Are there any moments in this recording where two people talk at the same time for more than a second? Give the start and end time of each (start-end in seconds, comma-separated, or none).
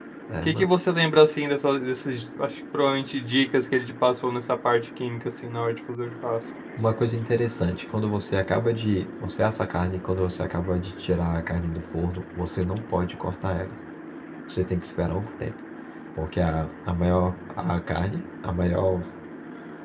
none